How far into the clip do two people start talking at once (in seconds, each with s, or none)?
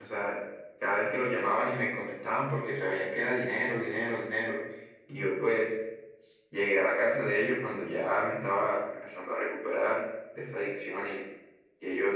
none